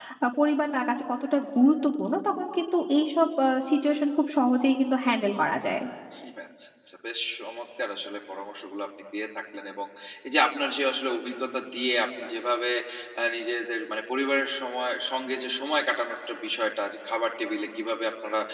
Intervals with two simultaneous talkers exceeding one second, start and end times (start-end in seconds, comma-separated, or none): none